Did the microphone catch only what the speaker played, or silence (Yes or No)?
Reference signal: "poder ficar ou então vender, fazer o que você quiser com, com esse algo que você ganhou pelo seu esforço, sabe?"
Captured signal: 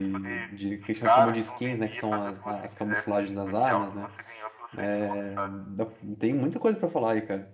No